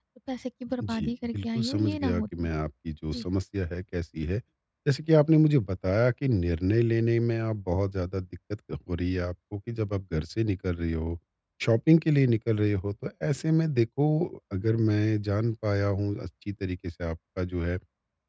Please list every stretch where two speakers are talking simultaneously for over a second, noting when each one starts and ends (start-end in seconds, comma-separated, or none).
0.8-2.2